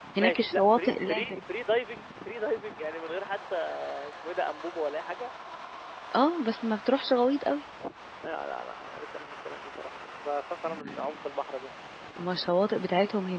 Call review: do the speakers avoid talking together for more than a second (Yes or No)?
No